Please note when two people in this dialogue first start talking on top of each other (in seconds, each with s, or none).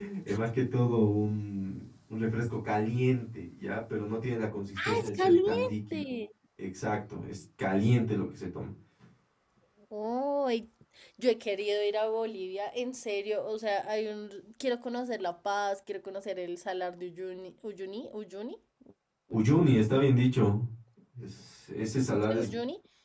4.8 s